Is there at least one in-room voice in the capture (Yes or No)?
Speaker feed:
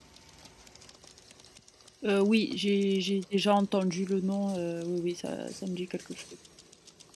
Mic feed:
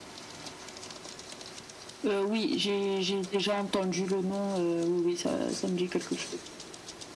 No